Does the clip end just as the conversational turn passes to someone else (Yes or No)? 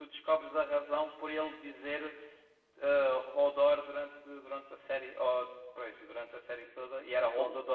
Yes